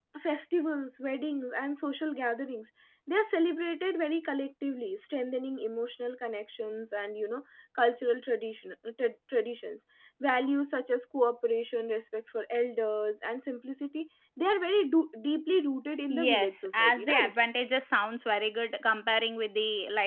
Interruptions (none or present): present